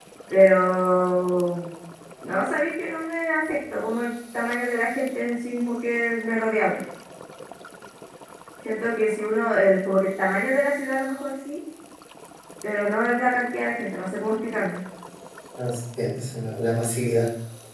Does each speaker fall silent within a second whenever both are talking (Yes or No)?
Yes